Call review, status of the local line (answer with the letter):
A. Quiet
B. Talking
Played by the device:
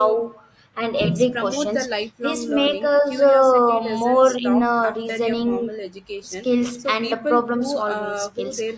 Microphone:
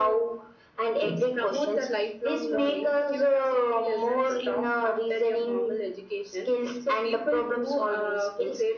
A